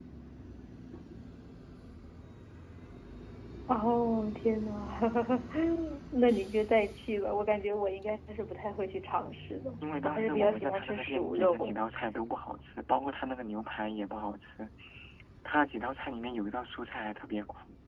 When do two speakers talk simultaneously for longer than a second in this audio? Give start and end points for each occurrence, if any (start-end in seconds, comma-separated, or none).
10.0-11.6